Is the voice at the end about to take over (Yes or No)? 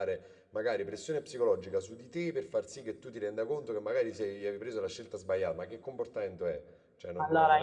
Yes